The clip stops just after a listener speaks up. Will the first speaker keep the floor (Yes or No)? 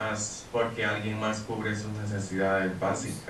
Yes